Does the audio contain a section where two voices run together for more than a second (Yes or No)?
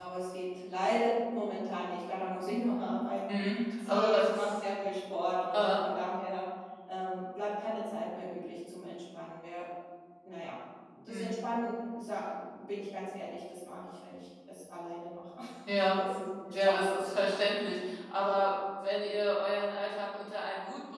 Yes